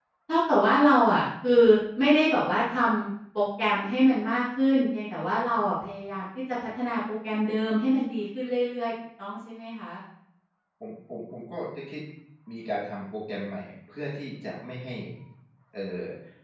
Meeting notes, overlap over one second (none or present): none